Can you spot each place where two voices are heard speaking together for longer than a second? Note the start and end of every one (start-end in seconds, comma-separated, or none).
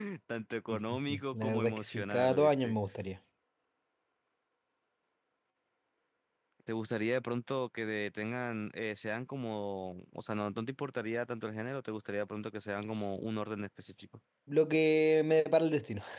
0.7-2.8